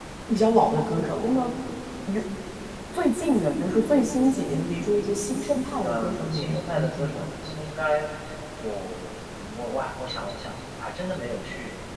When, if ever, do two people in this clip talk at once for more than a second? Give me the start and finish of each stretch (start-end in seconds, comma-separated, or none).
5.8-7.2